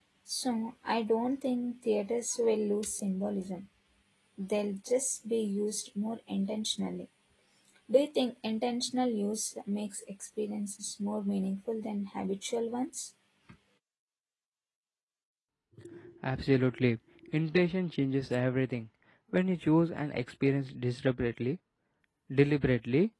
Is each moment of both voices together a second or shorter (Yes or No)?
Yes